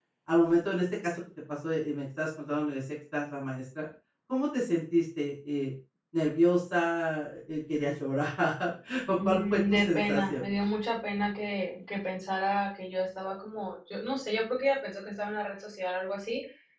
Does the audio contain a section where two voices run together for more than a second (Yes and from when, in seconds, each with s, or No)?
Yes, from 9.1 s